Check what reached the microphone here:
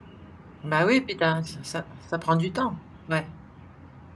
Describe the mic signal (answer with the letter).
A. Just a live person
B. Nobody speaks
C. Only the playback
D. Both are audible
A